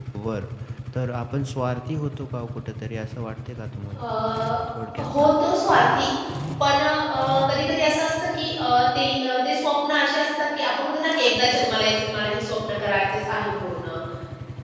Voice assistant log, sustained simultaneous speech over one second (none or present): none